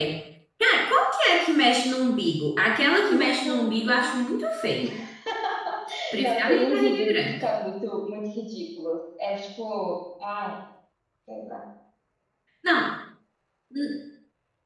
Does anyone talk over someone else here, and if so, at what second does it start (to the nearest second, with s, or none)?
3 s